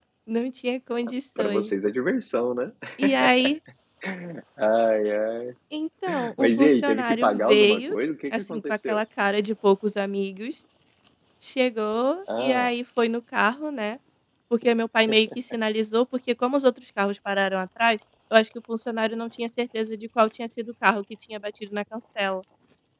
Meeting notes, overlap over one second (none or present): present